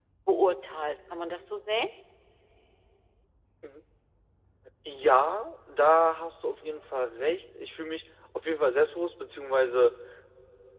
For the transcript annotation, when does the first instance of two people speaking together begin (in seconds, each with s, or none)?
none